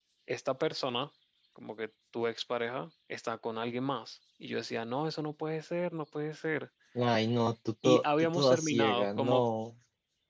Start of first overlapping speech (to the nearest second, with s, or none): 8 s